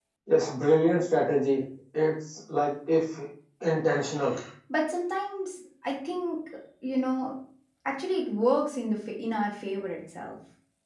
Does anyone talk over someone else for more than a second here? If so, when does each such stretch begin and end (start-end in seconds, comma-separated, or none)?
none